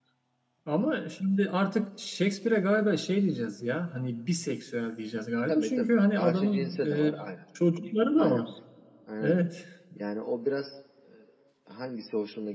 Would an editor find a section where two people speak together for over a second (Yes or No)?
Yes